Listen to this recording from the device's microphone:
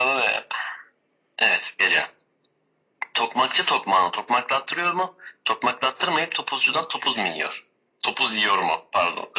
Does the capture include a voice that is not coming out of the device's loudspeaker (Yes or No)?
No